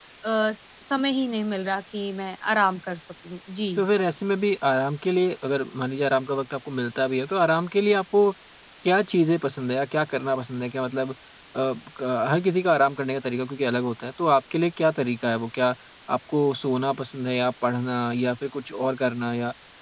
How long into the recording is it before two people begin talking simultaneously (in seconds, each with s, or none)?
none